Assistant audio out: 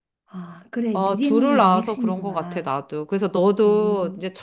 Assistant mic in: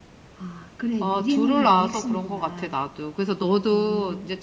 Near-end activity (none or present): none